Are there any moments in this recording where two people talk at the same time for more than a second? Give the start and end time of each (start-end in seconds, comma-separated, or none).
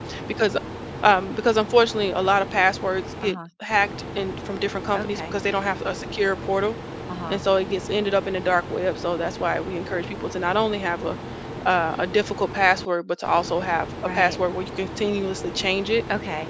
none